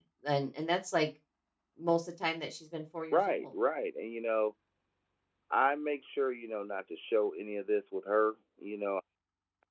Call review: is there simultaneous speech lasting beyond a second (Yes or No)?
No